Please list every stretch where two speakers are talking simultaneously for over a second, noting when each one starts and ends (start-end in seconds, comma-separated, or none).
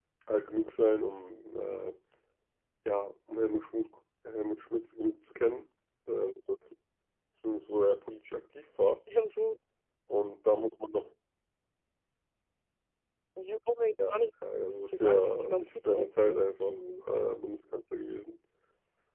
14.9-16.8